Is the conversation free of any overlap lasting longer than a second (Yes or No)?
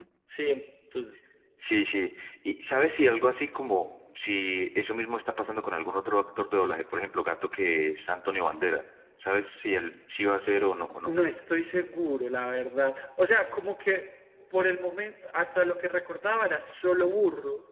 Yes